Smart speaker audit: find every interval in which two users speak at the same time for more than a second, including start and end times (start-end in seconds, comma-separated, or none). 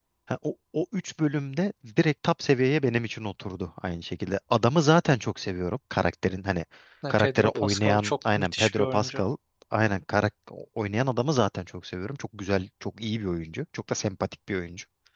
7.1-9.2